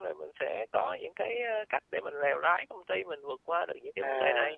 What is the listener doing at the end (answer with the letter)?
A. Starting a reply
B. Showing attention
A